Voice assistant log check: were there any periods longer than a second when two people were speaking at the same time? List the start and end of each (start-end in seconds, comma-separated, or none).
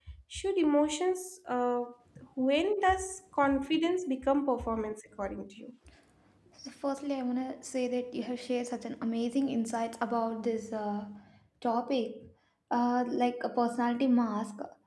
none